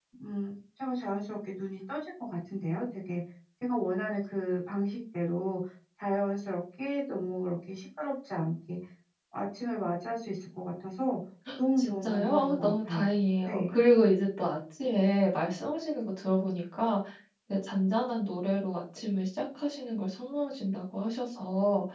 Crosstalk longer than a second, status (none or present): present